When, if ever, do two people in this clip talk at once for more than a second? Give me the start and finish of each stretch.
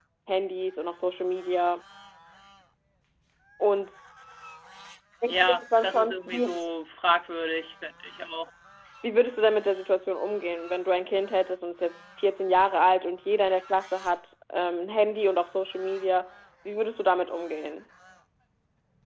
5.3-6.6

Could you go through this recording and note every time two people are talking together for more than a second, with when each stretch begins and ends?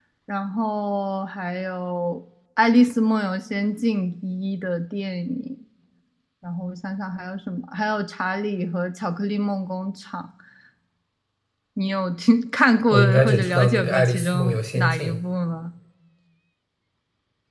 12.9-15.1

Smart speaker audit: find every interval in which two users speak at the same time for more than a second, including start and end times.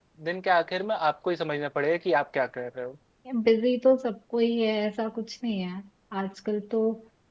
none

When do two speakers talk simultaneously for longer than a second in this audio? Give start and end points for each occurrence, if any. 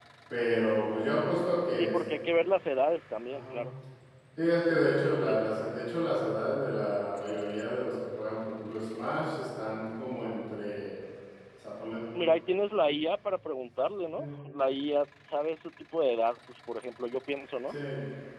none

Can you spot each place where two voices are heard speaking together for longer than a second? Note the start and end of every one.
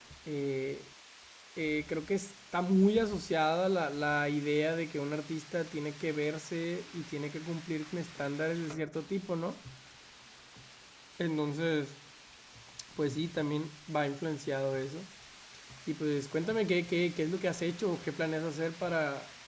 none

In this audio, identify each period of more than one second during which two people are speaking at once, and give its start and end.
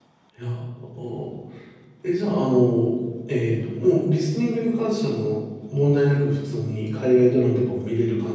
none

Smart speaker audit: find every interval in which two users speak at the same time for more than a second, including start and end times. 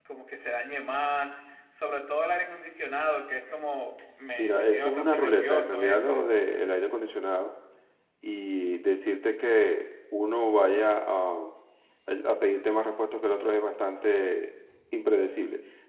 4.4-6.2

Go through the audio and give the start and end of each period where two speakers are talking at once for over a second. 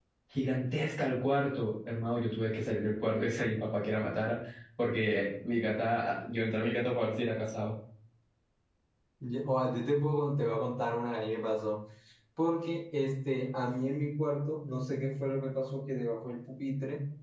none

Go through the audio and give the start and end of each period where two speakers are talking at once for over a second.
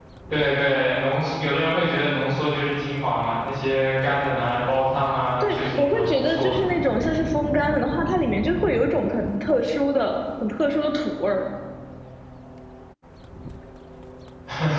5.4-6.7

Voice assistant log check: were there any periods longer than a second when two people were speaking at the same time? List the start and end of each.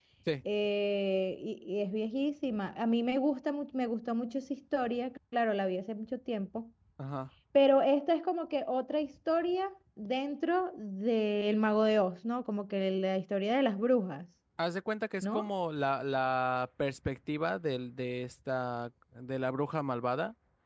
none

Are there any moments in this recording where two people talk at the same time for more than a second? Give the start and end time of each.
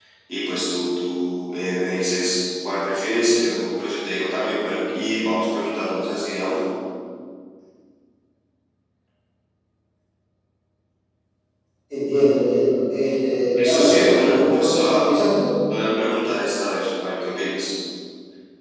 13.5-15.0

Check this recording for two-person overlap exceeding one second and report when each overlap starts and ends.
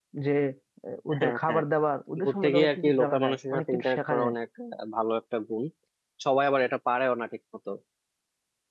2.2-4.3

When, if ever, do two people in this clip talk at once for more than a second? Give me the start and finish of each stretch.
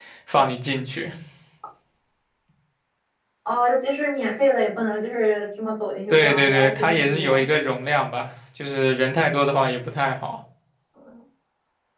6.1-7.5

